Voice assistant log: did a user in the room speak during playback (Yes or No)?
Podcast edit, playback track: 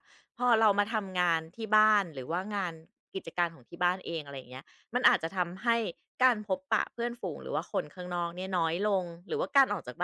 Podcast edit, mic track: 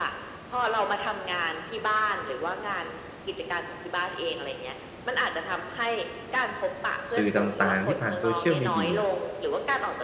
Yes